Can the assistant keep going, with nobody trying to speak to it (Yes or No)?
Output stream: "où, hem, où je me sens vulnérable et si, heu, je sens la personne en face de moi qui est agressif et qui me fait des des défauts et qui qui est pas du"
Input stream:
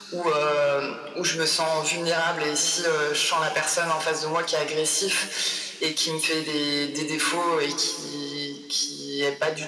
Yes